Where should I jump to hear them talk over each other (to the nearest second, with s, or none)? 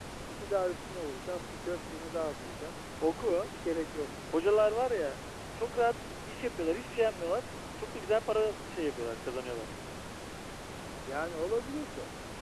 none